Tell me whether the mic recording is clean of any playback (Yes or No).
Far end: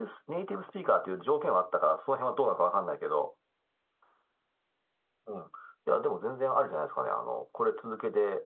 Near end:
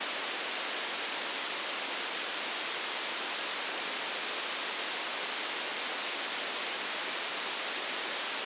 Yes